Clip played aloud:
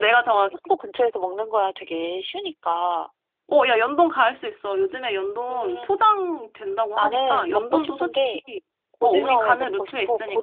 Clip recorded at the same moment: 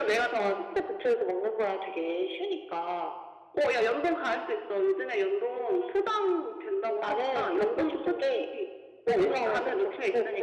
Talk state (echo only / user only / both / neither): echo only